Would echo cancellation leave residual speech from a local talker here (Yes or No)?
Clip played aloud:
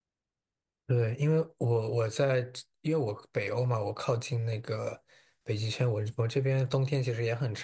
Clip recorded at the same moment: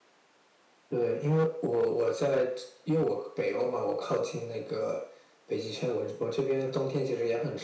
No